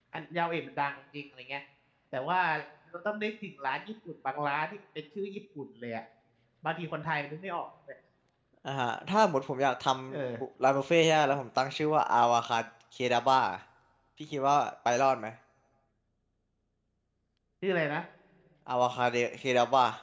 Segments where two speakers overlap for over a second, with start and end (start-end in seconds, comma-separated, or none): none